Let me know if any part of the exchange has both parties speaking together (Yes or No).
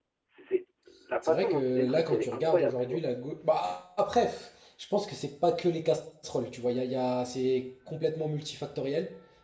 Yes